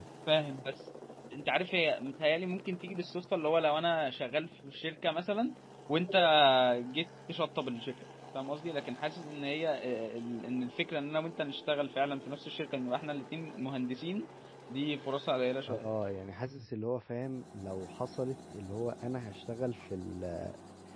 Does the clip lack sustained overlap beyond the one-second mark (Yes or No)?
Yes